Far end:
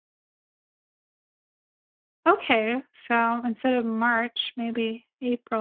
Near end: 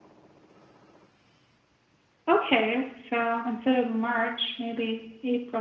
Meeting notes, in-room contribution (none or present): none